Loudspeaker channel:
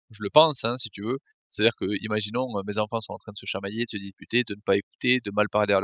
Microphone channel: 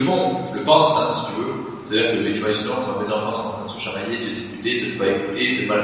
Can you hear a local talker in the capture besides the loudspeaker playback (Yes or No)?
No